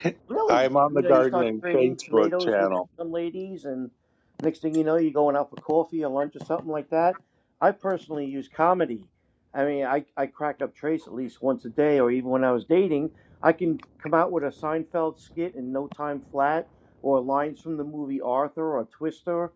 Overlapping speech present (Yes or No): Yes